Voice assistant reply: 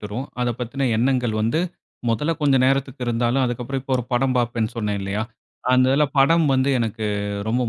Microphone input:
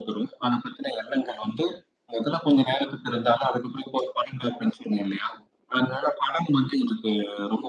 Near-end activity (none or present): none